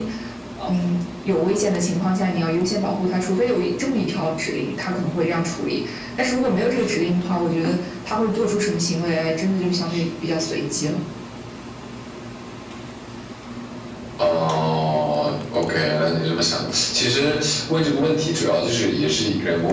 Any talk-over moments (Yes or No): No